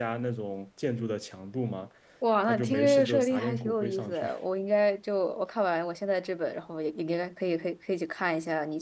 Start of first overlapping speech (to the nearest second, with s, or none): 2 s